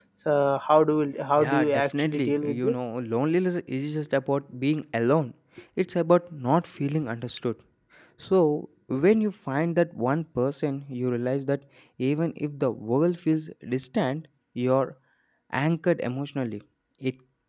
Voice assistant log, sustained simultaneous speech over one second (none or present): present